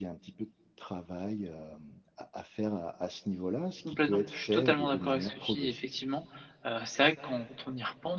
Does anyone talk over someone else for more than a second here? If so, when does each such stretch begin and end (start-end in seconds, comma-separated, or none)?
3.9-5.9